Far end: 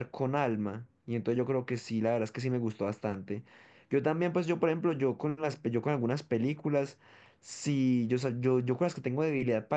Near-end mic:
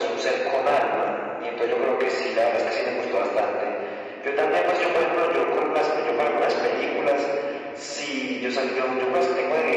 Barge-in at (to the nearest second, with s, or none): none